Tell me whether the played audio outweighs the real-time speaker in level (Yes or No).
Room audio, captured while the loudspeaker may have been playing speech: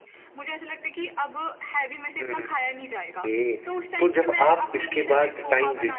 No